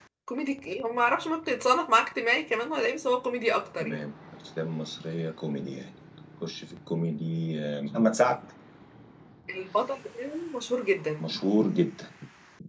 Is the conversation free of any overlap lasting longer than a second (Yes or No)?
Yes